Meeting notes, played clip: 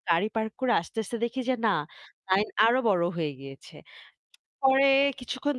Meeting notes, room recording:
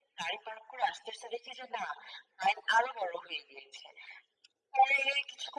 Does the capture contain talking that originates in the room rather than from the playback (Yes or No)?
No